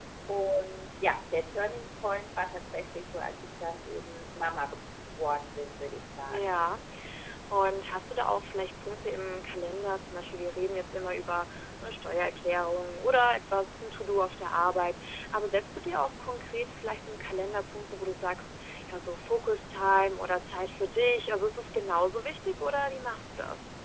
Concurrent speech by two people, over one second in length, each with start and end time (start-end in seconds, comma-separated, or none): none